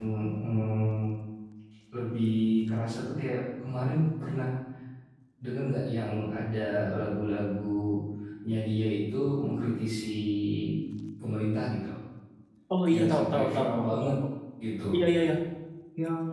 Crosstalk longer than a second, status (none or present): present